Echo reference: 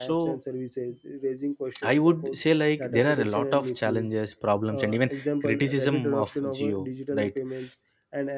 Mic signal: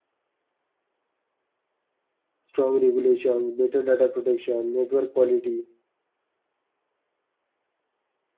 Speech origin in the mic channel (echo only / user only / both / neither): user only